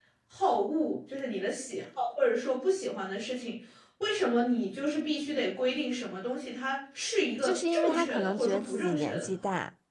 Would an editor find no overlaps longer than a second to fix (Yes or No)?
No